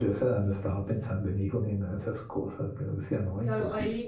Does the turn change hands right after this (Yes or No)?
Yes